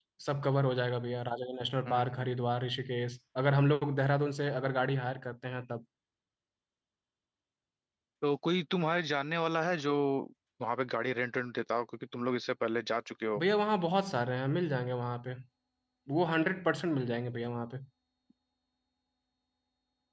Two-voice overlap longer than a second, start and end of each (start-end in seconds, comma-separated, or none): none